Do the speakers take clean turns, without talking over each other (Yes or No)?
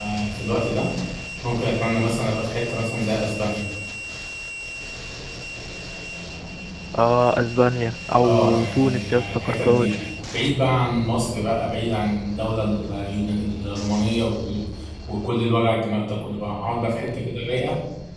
No